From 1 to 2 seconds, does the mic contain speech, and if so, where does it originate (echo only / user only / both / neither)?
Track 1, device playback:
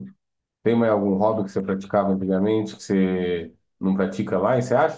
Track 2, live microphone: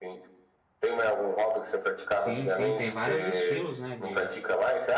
echo only